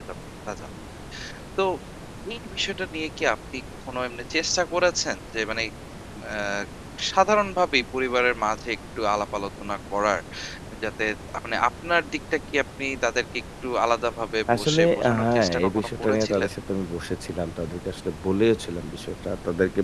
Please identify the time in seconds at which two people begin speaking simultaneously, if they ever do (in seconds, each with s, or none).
14.5 s